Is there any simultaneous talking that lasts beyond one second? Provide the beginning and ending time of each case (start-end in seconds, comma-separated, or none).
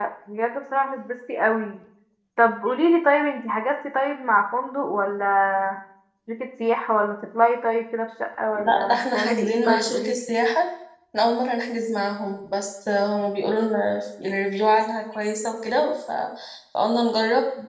8.6-10.2